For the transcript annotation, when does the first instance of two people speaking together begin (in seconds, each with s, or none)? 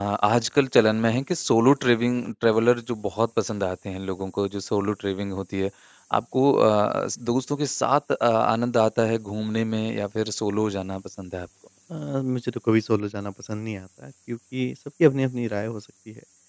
none